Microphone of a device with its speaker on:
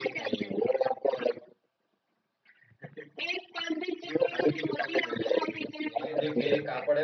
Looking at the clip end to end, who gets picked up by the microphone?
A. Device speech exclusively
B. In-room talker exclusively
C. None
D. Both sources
D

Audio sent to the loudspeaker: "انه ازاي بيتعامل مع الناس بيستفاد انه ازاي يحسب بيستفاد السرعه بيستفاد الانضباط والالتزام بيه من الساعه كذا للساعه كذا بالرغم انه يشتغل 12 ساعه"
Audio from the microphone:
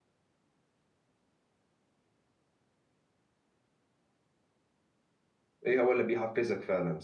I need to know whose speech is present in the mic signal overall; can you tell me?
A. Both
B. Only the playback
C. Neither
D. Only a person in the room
D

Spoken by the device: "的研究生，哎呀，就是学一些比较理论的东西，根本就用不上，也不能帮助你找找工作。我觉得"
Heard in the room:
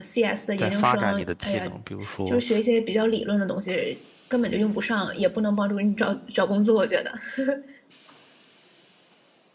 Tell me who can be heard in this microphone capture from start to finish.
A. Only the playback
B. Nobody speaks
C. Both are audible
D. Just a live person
C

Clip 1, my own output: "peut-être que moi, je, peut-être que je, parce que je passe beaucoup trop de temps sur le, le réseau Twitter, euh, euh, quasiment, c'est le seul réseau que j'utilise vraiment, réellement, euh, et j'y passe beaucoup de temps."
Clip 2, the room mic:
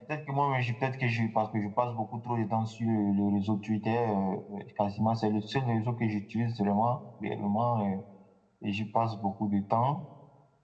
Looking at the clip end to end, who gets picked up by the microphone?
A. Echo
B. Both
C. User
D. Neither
A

